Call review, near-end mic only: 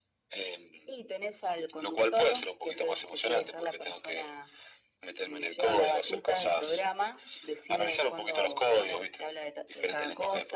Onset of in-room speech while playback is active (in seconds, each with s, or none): none